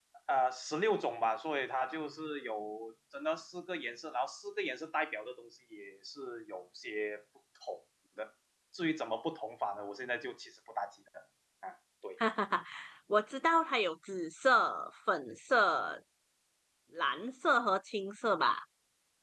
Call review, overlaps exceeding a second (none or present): none